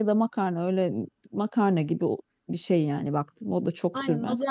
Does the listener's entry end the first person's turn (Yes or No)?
Yes